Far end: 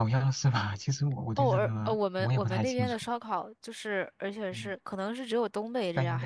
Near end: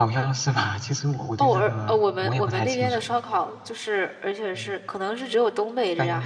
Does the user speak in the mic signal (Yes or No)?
No